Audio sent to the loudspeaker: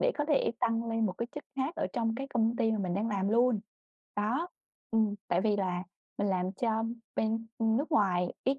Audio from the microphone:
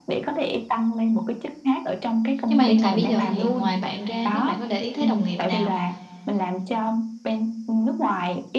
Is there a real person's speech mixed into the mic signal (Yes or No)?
Yes